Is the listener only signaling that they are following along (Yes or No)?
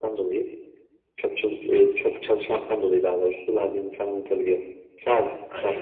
No